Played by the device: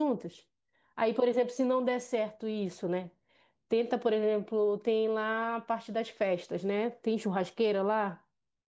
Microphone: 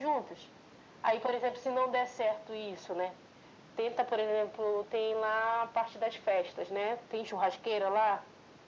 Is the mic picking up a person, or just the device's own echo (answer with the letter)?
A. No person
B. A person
A